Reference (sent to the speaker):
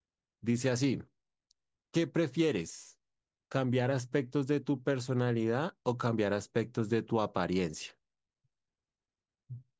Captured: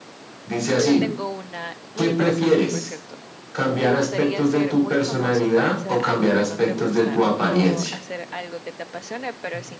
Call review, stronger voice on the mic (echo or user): echo